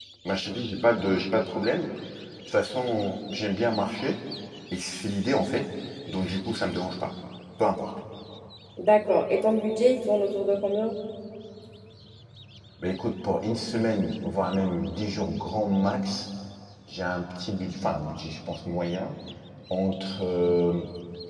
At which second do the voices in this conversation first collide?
none

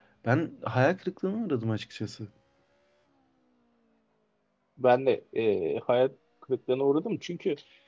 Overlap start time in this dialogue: none

